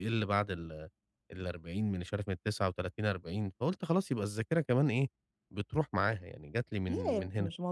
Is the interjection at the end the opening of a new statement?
Yes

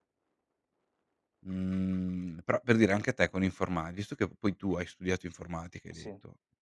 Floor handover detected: No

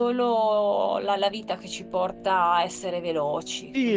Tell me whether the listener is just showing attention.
No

